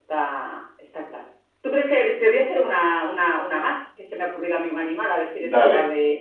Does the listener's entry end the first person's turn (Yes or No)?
No